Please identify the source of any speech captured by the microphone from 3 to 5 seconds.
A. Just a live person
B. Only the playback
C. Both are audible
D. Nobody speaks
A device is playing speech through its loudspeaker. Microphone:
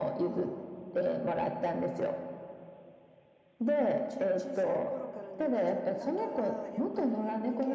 C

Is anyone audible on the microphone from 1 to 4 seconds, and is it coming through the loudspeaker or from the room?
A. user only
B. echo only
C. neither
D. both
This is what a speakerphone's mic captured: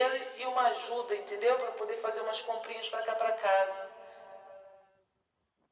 B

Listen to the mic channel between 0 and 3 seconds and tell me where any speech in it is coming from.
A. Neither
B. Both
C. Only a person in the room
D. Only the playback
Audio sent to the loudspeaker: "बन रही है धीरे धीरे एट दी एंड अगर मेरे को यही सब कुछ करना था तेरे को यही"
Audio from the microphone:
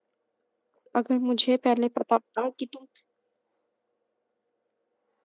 C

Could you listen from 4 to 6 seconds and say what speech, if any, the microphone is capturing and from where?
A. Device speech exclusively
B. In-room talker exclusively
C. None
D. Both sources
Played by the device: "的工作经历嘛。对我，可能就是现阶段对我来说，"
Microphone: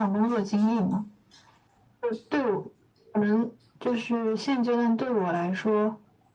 A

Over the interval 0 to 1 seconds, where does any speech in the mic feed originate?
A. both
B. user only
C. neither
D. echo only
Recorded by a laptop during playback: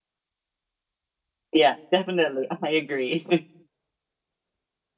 C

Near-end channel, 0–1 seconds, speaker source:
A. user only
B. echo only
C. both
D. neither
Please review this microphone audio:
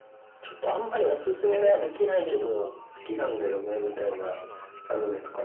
B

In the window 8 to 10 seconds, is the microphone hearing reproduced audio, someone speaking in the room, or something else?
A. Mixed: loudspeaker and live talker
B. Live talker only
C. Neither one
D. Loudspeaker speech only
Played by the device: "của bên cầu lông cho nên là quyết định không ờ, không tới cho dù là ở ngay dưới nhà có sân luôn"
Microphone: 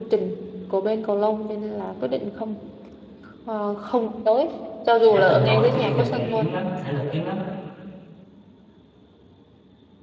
C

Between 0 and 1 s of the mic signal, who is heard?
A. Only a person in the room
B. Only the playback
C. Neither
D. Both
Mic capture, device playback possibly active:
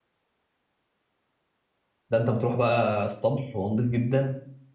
C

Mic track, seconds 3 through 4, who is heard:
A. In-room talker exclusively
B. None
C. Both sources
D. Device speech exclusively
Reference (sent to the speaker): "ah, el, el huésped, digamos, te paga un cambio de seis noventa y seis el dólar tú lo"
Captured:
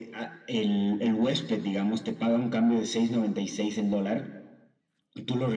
D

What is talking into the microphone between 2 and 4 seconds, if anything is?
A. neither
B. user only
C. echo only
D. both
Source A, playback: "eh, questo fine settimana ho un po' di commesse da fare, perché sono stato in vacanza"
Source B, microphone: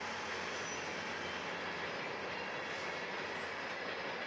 A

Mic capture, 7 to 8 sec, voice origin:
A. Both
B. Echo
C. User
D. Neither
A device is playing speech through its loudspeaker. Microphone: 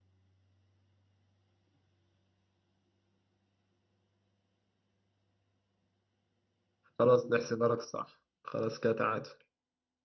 C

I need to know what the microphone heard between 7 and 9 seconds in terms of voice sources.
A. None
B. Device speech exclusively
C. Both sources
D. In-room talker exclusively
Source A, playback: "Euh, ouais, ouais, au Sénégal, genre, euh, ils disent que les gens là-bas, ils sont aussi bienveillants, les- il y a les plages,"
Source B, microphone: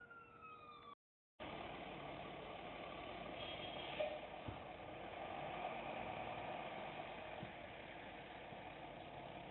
A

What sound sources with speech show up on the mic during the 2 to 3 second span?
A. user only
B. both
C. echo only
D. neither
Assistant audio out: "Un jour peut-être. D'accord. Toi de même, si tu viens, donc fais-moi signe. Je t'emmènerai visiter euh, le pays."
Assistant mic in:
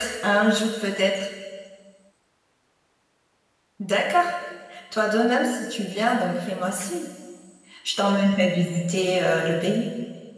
D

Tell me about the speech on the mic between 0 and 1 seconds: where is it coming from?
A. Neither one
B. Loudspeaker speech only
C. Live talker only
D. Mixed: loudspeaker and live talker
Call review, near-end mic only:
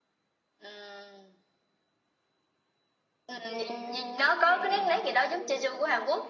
B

